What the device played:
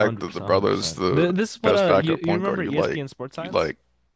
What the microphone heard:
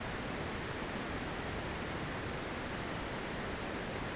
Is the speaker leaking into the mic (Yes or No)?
No